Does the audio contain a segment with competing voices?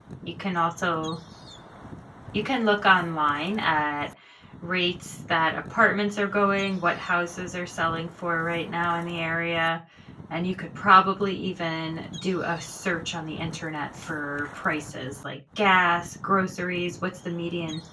No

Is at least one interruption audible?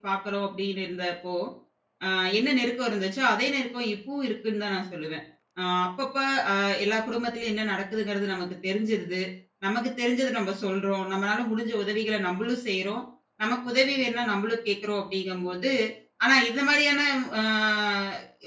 No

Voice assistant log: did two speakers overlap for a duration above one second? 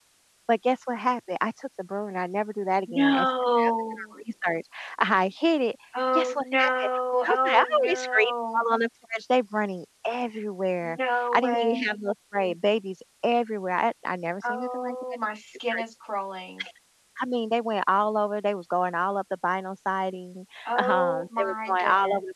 Yes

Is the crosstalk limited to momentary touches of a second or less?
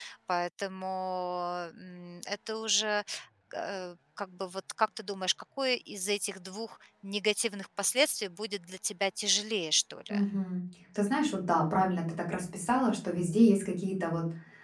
Yes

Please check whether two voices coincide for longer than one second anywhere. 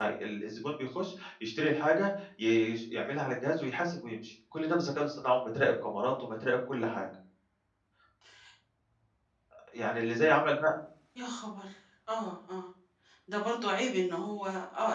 No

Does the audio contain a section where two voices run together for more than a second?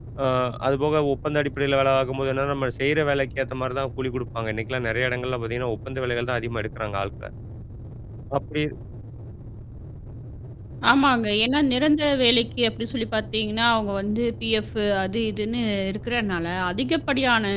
No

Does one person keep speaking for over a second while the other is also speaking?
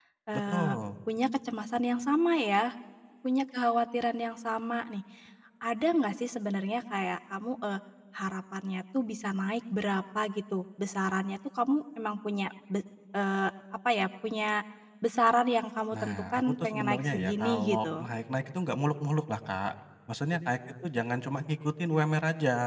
Yes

